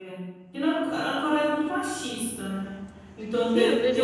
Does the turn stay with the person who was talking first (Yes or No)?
No